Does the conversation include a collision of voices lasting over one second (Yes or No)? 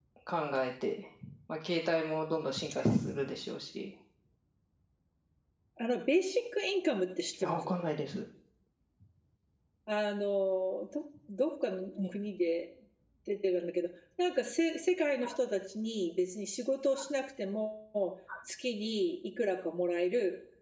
No